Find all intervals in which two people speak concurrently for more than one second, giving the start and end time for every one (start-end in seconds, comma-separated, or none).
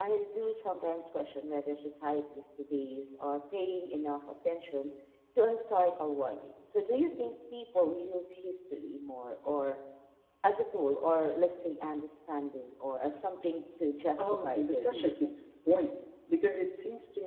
14.2-15.4